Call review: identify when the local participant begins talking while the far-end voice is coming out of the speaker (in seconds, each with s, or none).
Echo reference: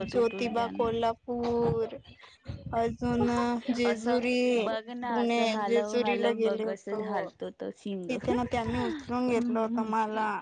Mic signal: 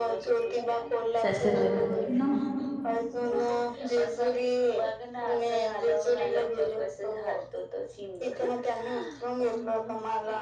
1.2 s